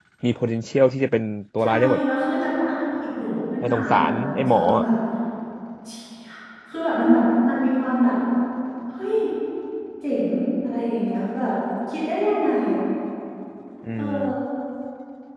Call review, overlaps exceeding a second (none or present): present